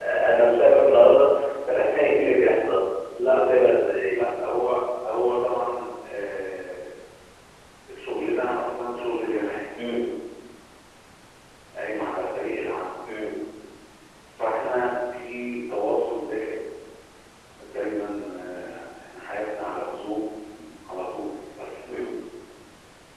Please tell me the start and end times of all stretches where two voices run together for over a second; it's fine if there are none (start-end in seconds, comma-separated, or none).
none